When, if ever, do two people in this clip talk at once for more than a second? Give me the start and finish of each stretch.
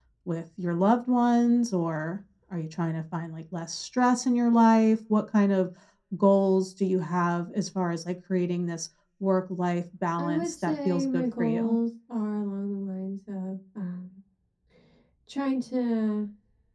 10.2-11.8

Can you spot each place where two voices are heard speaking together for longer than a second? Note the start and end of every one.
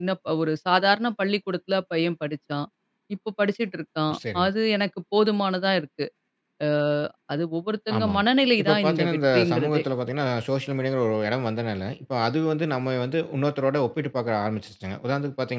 8.6-9.8

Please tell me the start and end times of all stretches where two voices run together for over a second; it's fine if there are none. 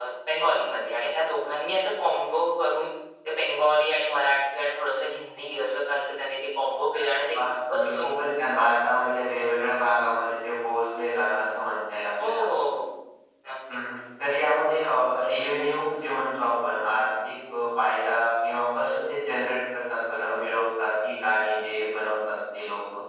7.0-8.2

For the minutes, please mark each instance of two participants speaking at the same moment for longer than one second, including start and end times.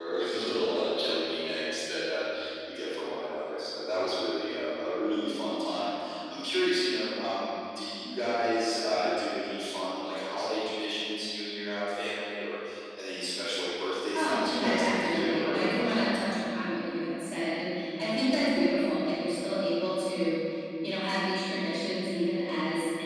14.1-16.1

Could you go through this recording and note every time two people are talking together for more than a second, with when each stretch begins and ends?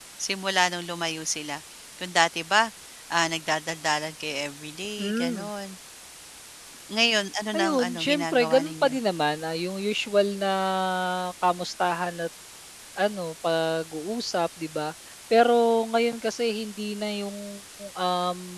7.6-8.9

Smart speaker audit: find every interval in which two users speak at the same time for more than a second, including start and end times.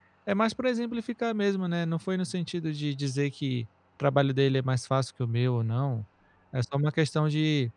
none

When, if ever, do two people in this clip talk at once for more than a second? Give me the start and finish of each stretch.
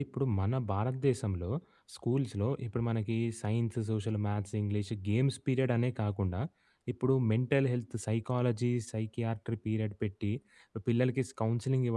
none

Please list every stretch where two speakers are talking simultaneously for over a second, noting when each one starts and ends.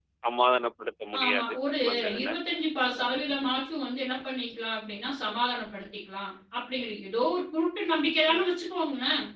none

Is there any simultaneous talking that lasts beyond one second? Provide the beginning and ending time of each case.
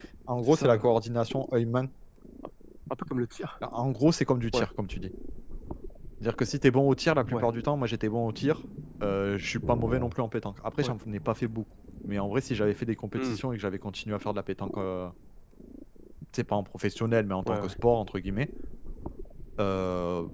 none

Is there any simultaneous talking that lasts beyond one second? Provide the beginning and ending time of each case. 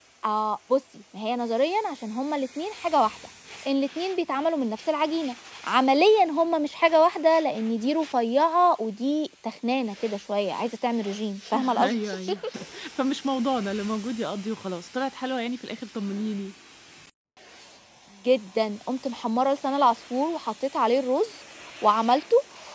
none

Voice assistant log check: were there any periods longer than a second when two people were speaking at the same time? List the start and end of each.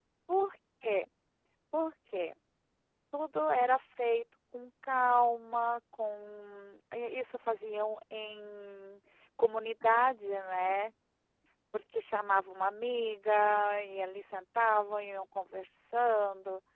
none

